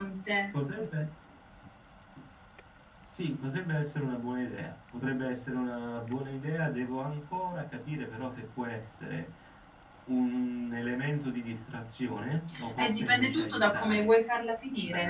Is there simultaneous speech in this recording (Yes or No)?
Yes